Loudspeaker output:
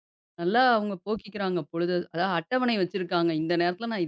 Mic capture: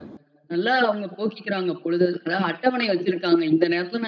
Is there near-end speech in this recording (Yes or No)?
No